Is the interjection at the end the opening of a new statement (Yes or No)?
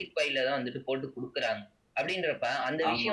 No